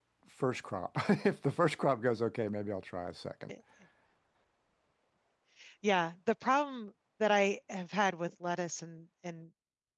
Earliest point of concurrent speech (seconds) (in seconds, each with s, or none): none